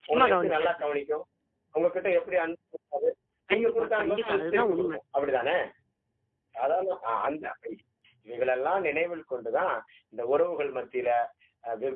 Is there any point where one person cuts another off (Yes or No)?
Yes